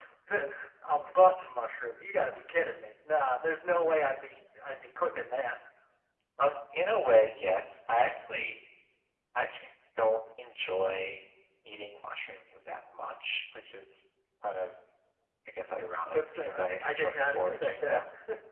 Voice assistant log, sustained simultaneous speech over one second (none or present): present